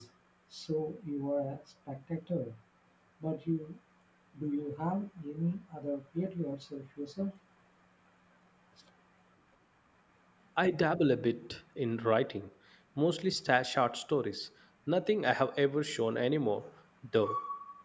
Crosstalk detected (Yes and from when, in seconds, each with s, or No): No